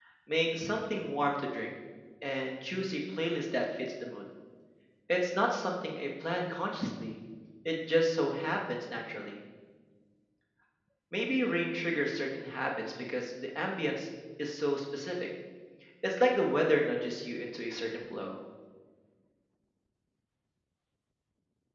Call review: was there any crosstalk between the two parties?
No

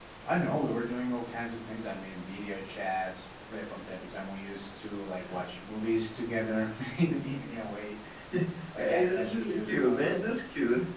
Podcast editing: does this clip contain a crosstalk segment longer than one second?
Yes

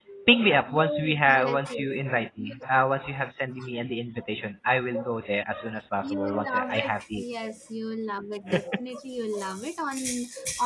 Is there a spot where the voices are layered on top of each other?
Yes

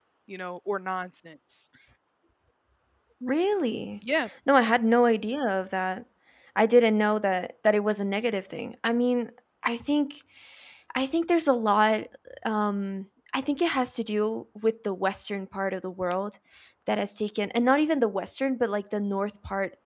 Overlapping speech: No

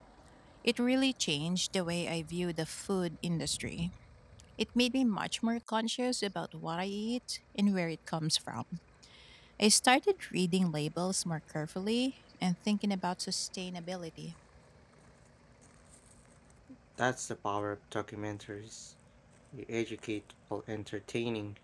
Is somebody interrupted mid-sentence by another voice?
No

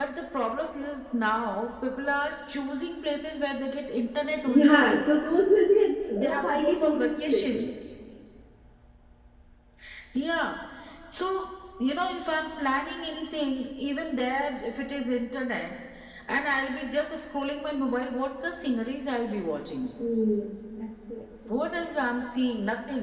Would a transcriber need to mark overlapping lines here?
Yes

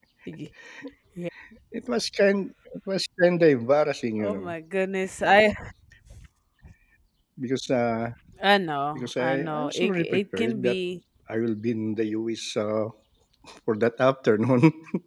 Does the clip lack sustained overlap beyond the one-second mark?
No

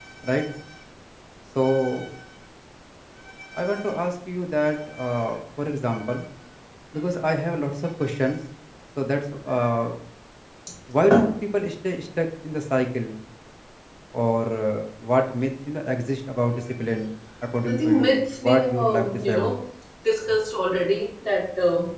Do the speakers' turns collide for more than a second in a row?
Yes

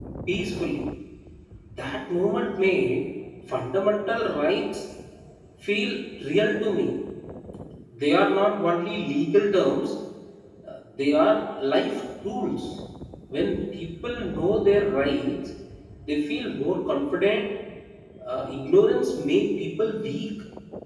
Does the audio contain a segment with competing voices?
No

